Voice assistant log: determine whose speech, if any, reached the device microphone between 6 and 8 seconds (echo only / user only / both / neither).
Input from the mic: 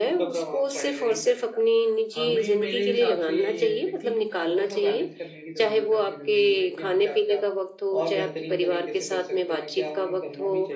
both